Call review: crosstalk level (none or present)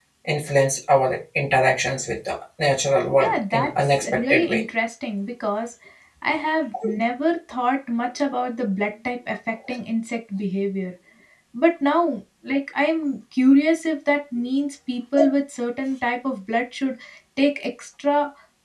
present